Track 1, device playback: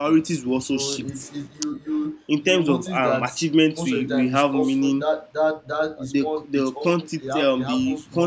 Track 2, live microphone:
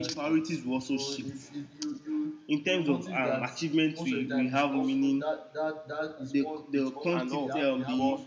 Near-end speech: present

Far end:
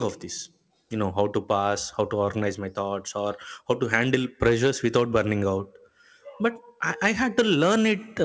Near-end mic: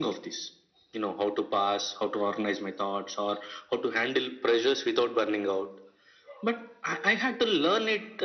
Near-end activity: none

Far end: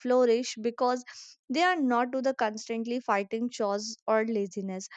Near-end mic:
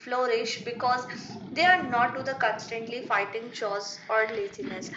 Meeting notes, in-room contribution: none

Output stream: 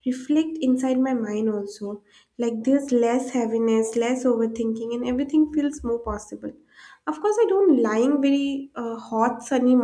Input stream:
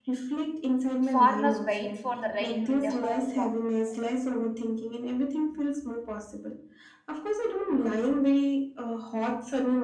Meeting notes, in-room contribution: present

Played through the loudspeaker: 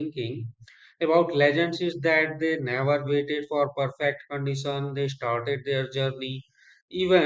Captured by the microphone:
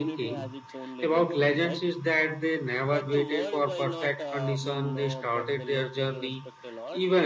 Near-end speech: present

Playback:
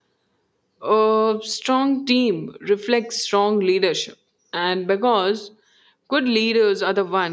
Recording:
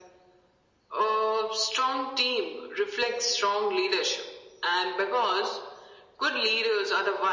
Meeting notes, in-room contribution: none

